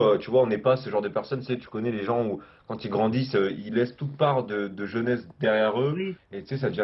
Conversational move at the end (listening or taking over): listening